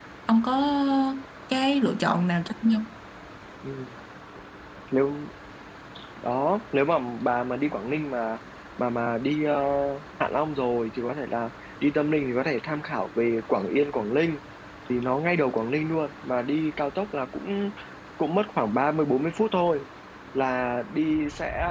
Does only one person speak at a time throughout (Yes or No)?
Yes